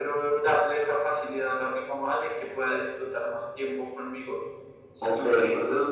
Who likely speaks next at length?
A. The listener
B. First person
A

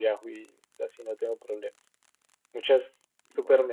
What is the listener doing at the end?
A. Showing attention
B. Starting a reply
A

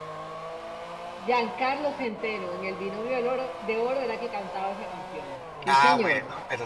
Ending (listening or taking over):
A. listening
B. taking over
B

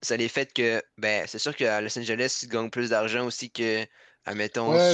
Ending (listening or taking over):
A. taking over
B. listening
A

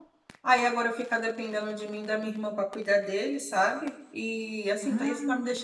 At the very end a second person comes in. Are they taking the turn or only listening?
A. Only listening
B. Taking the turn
A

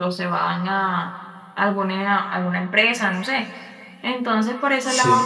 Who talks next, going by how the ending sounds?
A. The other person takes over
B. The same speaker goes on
B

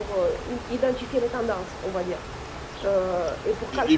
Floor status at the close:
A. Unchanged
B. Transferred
B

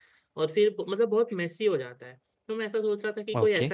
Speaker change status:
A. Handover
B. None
B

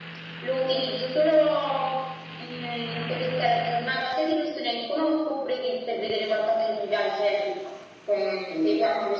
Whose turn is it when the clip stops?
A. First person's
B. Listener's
A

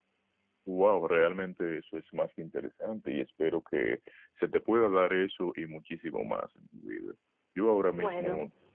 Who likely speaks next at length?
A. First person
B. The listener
A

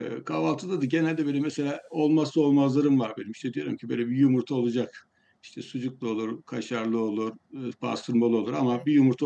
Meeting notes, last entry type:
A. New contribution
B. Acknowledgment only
B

